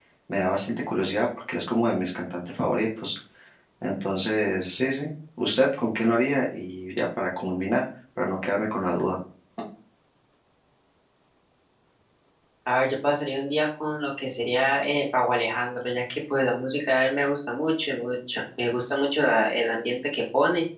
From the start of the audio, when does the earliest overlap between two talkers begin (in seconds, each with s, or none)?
none